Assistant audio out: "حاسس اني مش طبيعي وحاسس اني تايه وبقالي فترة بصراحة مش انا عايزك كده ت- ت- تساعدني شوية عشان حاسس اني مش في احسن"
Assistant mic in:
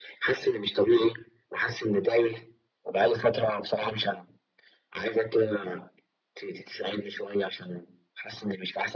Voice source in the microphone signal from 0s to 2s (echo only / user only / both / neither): echo only